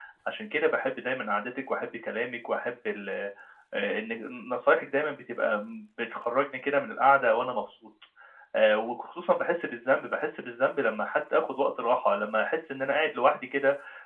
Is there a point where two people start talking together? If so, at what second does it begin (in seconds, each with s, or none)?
none